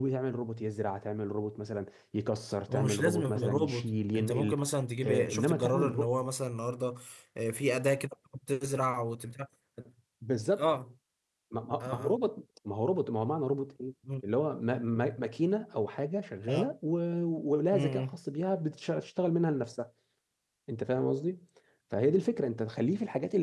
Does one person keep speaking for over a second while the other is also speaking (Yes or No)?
Yes